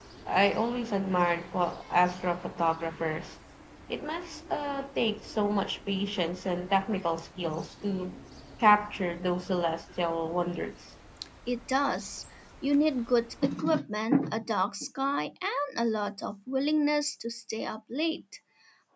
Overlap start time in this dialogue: none

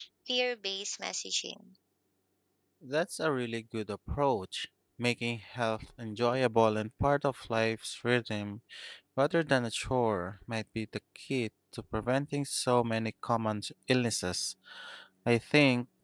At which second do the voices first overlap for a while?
none

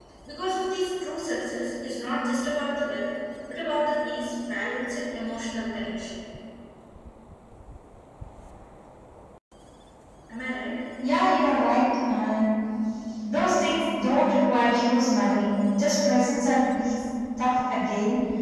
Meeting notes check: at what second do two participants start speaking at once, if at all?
none

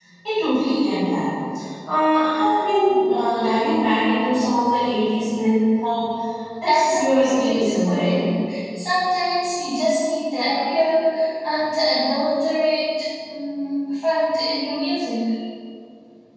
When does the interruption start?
6.6 s

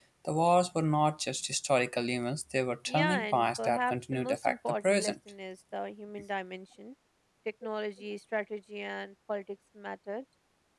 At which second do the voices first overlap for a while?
2.9 s

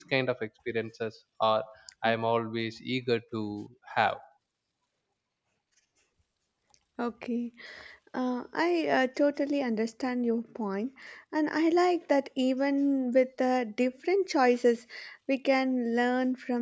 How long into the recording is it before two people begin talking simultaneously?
none

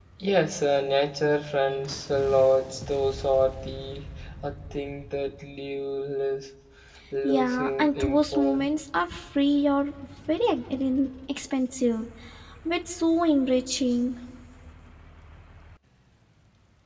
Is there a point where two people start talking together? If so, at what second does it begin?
7.2 s

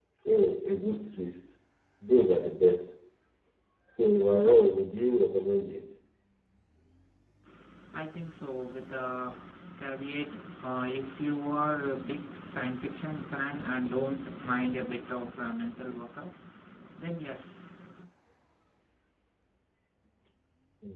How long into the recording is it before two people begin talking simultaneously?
none

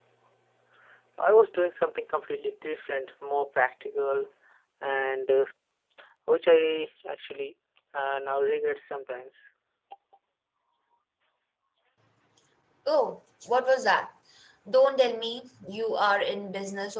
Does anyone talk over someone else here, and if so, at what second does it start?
none

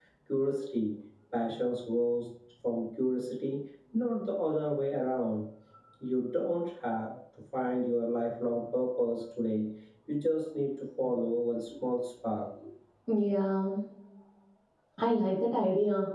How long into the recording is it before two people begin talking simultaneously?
none

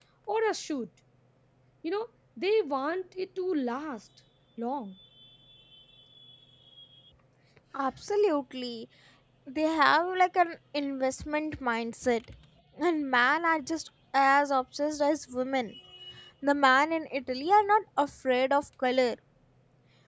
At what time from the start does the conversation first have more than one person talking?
none

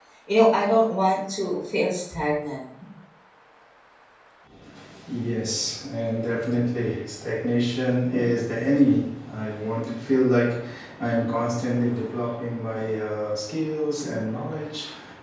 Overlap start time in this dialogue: none

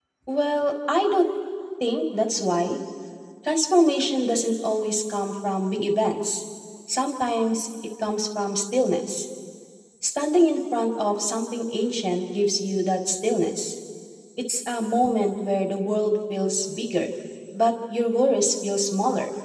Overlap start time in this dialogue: none

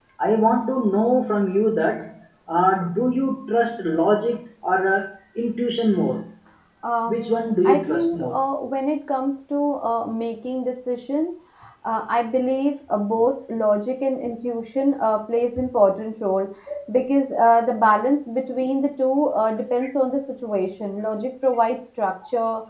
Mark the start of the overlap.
7.1 s

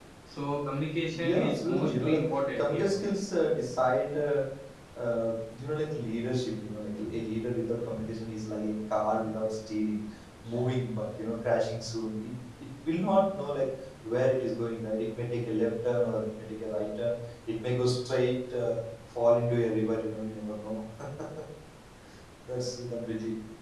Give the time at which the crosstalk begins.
1.1 s

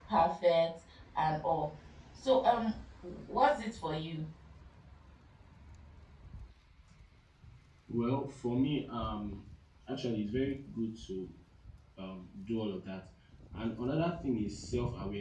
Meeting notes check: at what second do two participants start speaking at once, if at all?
none

